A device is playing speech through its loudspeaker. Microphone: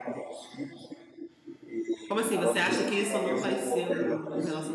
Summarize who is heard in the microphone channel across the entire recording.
both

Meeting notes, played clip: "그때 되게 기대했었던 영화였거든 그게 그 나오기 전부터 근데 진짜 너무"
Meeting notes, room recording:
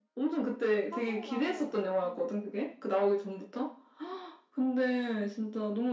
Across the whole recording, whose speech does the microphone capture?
both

